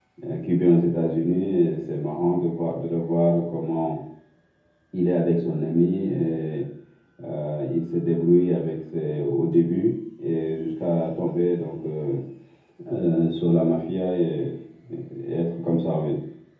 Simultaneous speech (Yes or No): No